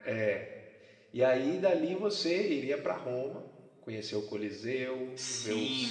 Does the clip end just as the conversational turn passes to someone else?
Yes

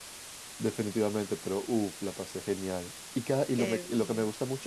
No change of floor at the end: Yes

